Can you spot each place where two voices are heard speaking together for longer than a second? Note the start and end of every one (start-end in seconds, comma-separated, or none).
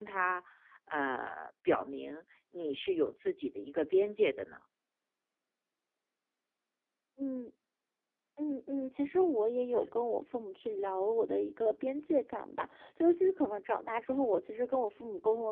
none